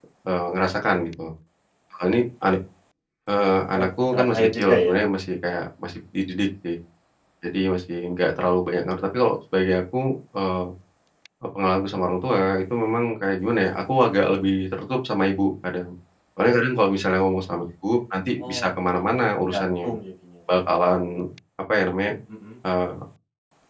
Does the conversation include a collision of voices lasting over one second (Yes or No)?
Yes